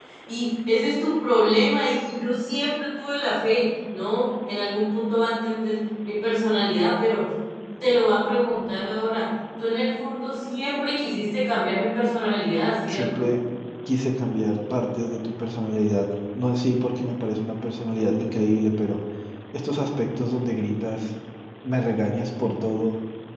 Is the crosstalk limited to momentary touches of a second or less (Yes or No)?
Yes